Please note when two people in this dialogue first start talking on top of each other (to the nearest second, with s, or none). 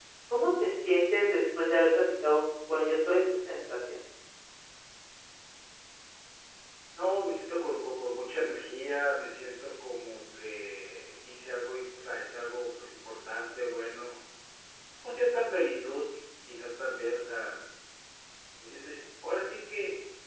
none